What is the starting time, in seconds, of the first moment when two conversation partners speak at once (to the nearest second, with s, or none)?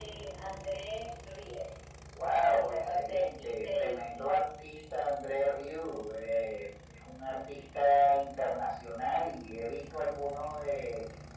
3 s